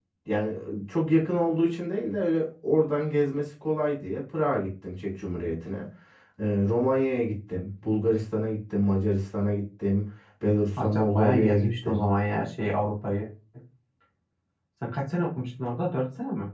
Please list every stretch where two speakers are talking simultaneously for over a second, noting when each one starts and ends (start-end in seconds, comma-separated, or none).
10.8-12.1